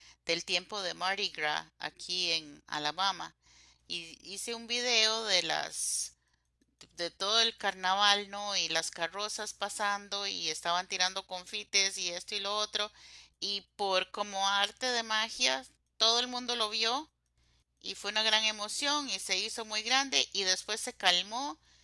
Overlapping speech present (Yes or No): No